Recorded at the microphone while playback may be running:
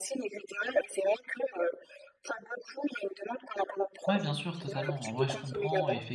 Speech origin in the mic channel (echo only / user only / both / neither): both